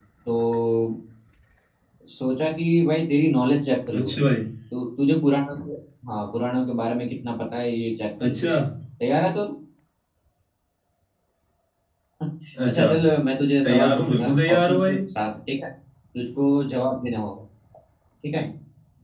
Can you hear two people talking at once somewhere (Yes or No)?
Yes